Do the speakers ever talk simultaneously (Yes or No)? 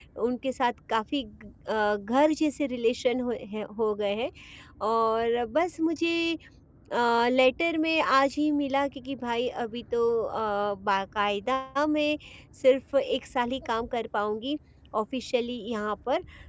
No